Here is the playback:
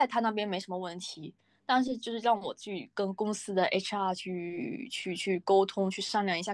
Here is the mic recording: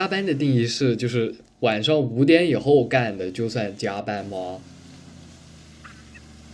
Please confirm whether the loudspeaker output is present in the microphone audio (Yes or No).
No